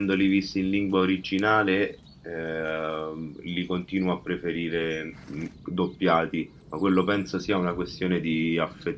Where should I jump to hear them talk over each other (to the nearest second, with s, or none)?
none